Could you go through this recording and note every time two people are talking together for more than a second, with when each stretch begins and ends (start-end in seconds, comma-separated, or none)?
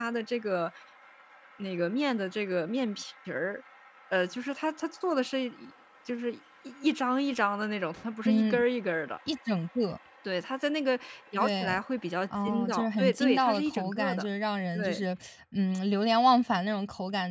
12.4-14.3